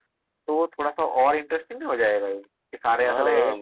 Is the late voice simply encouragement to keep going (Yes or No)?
No